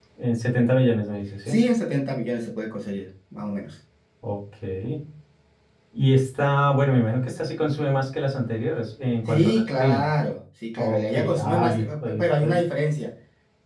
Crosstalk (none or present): present